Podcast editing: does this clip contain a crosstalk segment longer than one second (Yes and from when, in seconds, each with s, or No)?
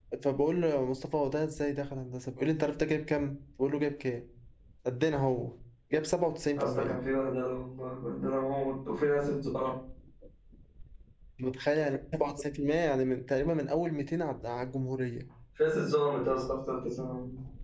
No